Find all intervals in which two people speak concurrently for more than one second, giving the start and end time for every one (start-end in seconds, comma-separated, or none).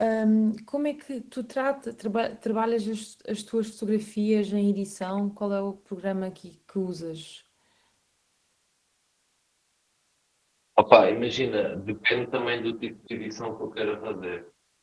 none